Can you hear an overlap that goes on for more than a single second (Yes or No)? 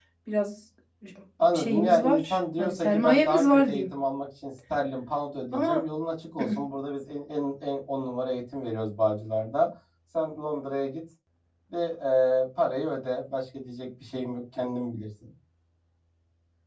Yes